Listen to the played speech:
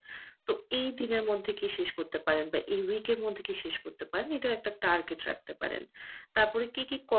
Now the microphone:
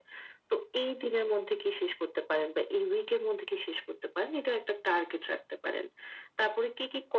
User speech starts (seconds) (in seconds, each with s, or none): none